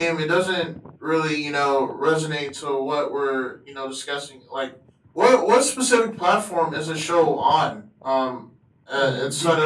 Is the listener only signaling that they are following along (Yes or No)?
Yes